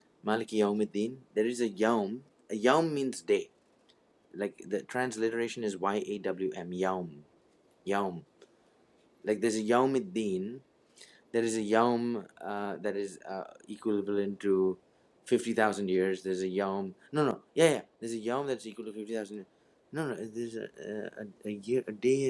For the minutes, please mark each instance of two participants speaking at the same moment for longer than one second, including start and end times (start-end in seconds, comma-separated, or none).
none